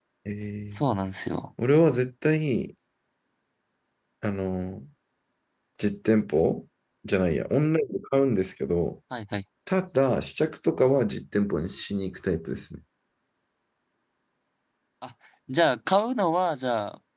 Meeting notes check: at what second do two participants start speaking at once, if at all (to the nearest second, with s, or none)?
none